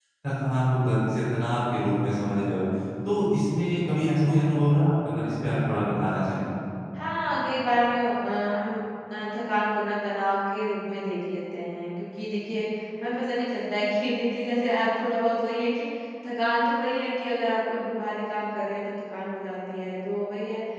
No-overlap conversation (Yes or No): Yes